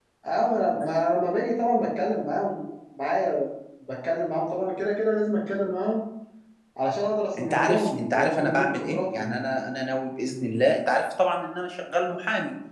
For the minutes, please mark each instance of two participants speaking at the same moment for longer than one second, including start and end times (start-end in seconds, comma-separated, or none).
7.4-9.4